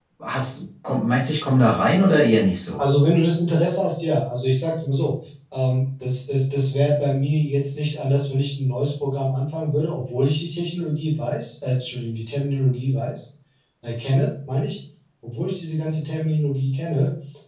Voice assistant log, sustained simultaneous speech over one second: none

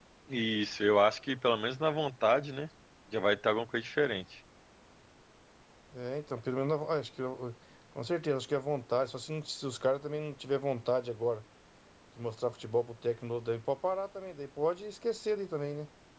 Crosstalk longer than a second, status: none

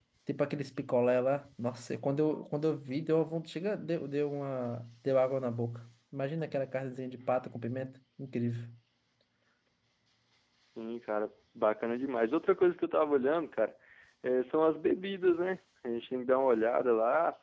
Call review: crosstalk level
none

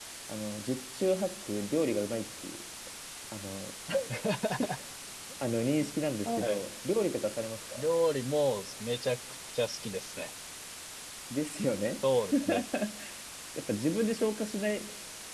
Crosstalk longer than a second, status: none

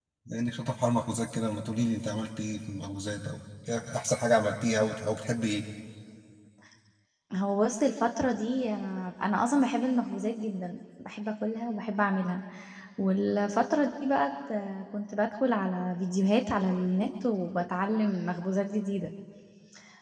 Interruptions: none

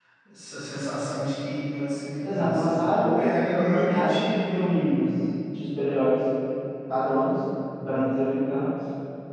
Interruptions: present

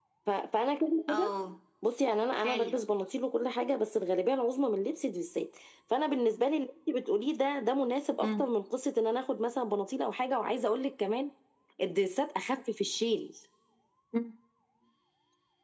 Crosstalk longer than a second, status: none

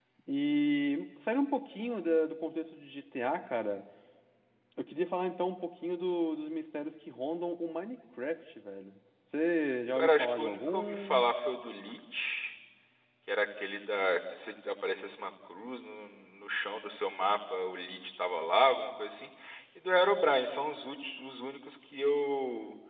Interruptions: present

